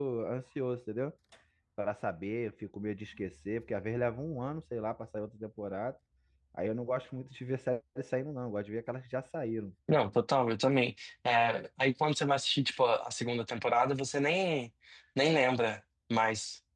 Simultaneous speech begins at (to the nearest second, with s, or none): none